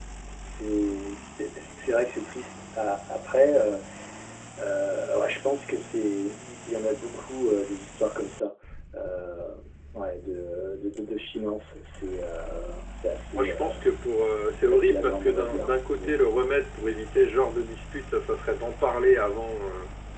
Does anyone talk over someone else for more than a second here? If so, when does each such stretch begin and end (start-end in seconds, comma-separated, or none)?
14.6-16.1